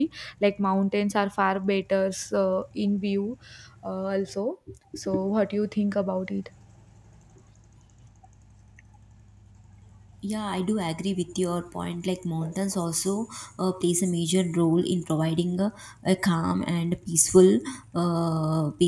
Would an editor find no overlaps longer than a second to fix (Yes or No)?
Yes